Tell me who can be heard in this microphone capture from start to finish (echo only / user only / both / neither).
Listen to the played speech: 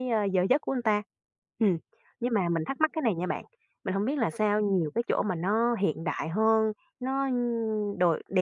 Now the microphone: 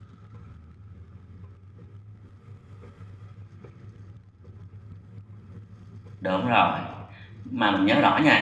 user only